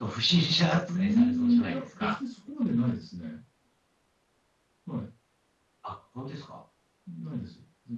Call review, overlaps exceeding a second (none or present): present